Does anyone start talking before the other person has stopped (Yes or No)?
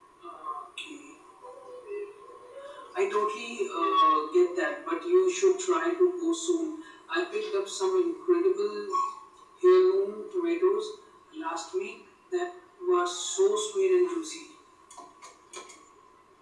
No